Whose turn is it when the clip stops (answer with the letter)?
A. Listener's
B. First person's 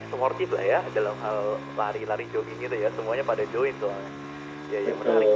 B